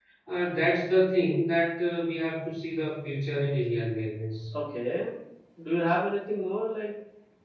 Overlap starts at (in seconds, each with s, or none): none